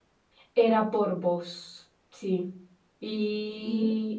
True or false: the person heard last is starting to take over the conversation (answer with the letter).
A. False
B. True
B